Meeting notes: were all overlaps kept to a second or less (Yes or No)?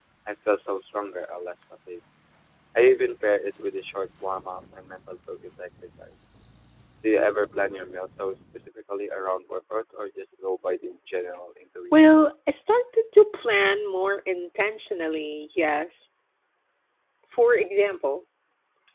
Yes